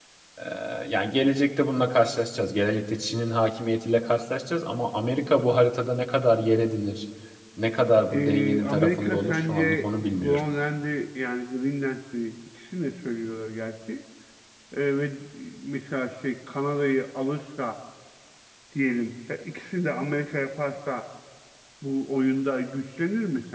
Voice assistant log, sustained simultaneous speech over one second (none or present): present